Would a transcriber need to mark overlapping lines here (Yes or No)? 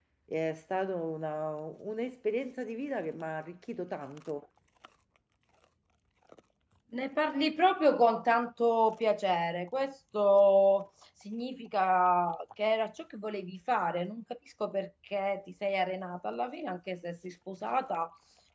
No